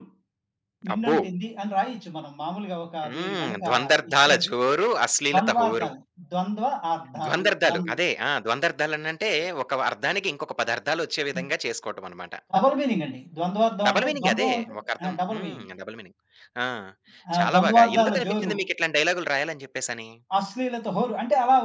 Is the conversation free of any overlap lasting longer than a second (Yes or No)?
No